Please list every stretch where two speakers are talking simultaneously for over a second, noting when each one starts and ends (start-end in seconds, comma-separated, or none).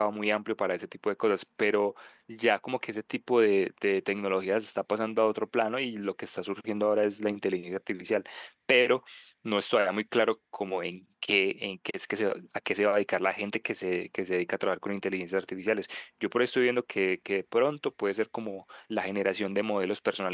none